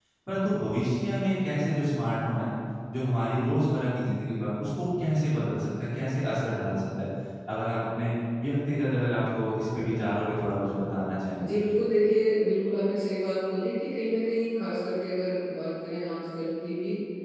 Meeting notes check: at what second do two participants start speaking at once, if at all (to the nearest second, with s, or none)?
none